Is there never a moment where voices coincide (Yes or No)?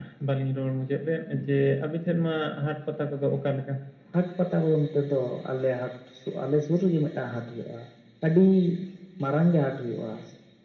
Yes